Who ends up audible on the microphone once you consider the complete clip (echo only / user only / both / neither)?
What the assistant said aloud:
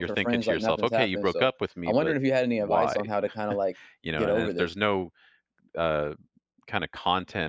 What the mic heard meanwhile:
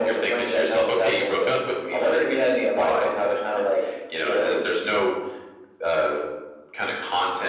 echo only